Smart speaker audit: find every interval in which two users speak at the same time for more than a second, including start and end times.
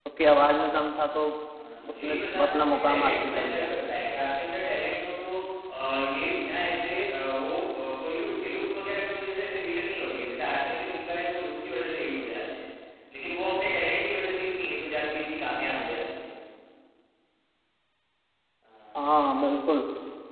1.9-3.7

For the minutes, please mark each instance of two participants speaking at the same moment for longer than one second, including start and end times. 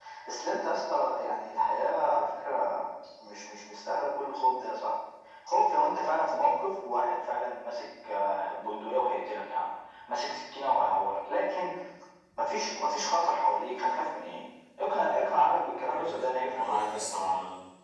15.9-17.1

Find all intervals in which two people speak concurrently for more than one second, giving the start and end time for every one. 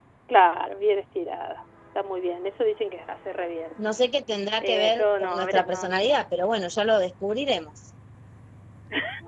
4.6-5.9

